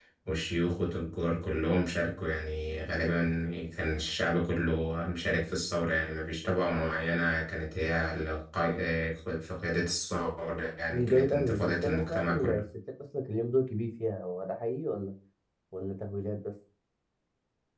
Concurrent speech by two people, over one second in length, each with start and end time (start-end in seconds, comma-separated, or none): 10.9-12.6